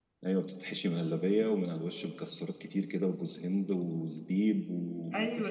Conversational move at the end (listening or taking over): taking over